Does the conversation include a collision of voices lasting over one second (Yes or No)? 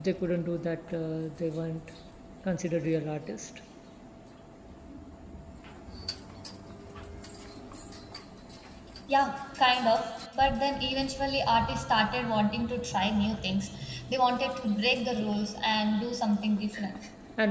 No